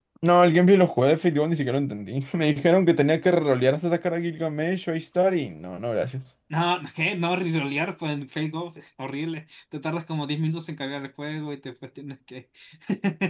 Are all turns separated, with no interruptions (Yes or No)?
Yes